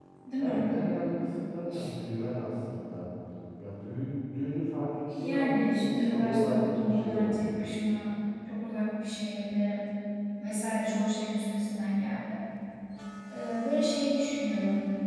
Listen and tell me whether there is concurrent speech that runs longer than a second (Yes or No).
Yes